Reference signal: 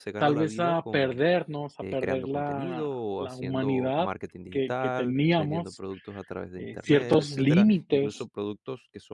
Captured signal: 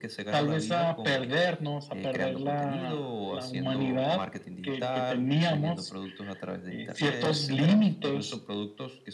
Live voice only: none

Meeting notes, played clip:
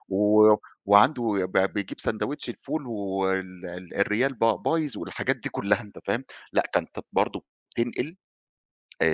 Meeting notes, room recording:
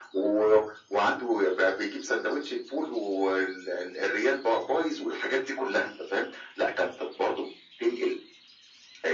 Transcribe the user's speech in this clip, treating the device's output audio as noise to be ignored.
none

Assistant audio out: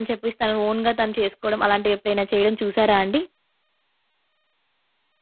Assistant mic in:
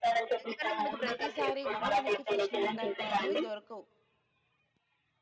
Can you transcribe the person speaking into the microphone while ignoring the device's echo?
ఎందుకంటే మనకి ప్రతిసారి గూడా మనకి ఫ్రెష్ నిమ్మకాయలనేవి దొరకవు.

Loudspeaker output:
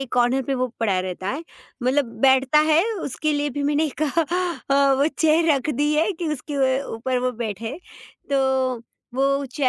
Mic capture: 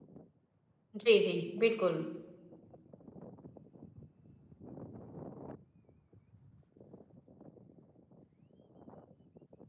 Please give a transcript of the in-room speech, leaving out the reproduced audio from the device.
जी, जी, बिल्कुल।

